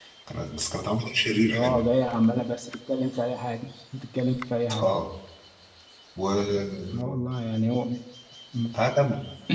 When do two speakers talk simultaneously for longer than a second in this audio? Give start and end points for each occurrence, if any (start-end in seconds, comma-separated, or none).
none